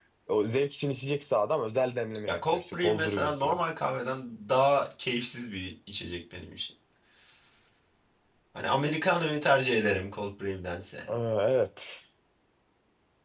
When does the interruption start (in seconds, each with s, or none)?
2.3 s